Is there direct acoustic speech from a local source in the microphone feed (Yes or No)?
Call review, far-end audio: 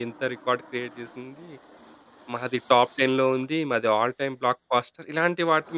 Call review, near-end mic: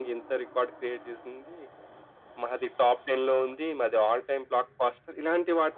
No